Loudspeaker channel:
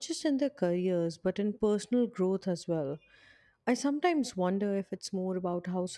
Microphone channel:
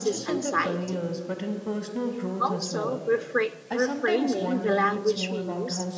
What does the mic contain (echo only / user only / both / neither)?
both